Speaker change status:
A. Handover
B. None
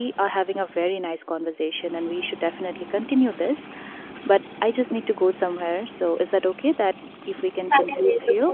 A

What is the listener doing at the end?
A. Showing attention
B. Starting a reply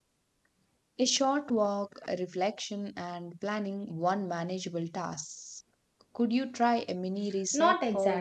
B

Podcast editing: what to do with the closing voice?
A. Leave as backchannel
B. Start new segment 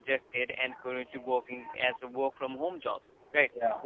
A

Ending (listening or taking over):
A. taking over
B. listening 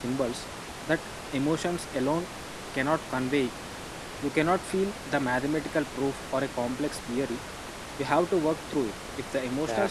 A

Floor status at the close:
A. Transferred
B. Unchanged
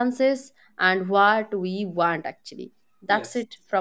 B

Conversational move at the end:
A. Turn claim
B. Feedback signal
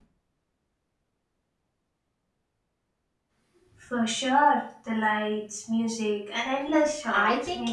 A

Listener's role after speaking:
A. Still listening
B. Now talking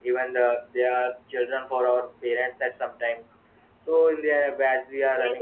B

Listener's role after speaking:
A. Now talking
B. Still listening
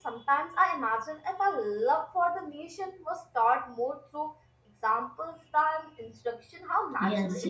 A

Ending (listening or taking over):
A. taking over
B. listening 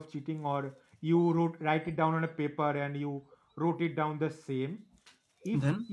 B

